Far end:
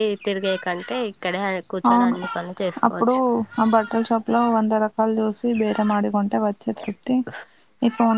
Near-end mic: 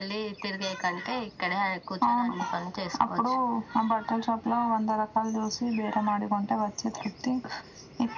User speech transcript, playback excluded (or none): none